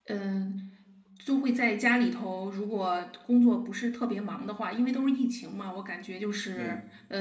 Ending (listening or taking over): listening